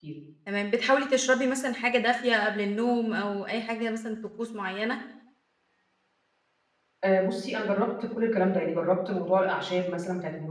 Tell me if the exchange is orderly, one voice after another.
Yes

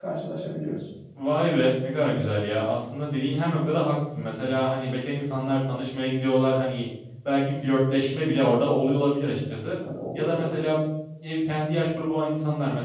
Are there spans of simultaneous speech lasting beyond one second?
No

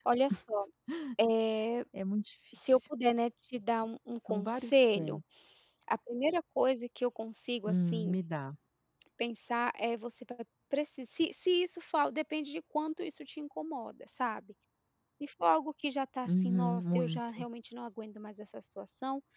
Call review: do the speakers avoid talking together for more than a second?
No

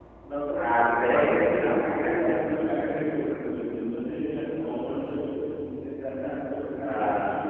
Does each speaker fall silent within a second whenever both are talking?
No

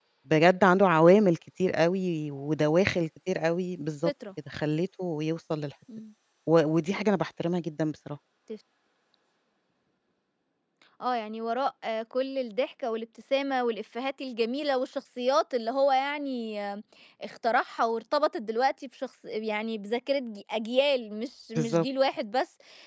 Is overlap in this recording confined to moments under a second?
Yes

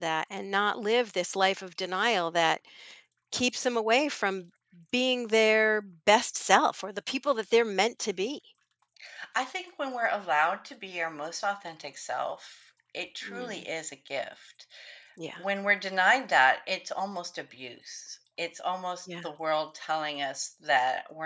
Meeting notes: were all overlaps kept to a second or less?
Yes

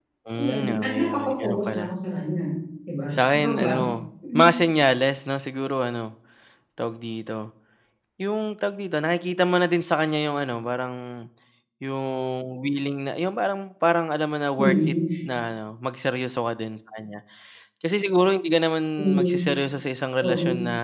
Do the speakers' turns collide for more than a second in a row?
Yes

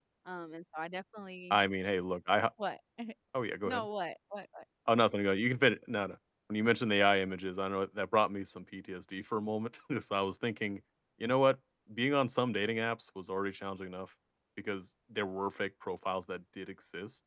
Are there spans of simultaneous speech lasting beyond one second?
No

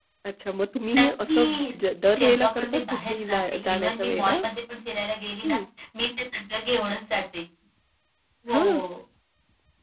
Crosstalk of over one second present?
Yes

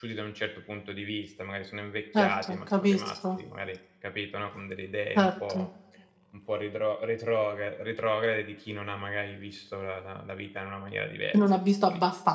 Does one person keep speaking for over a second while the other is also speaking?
Yes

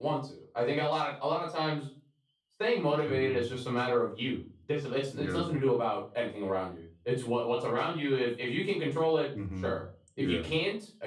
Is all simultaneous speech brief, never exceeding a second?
Yes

